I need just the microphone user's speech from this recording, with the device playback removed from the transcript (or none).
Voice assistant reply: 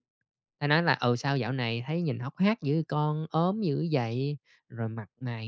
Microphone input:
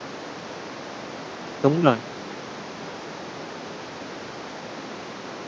Đúng rồi.